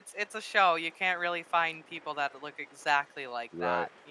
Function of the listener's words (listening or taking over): taking over